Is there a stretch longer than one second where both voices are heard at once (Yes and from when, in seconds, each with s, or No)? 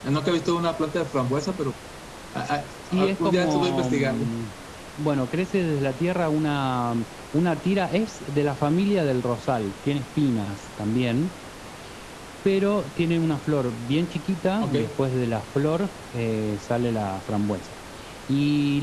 Yes, from 3.0 s